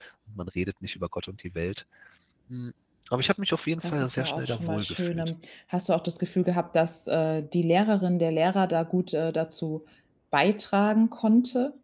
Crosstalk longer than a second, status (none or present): present